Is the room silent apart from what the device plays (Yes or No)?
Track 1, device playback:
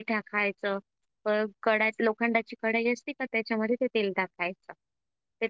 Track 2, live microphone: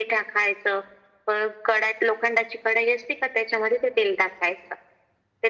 Yes